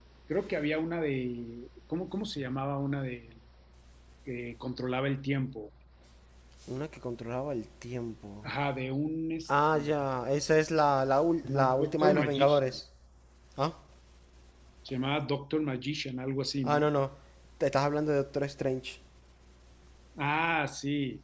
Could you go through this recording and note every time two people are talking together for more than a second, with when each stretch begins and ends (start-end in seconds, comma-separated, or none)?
11.4-12.8